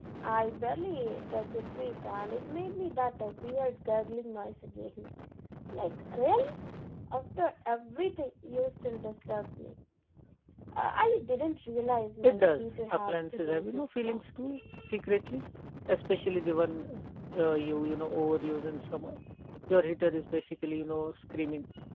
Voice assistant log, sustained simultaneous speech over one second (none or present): present